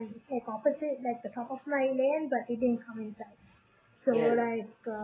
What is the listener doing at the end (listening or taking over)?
listening